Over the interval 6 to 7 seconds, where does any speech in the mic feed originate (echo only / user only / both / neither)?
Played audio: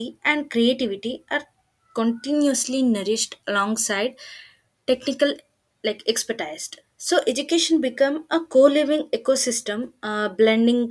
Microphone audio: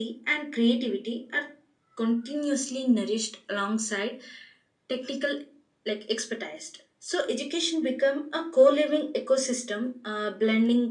echo only